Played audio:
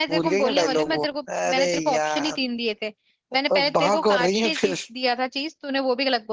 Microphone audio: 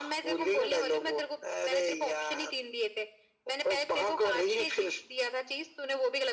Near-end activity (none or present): none